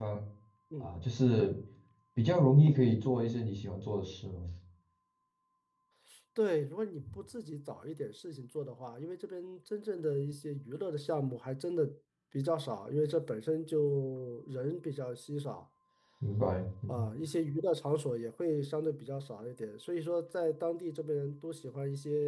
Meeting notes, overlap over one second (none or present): none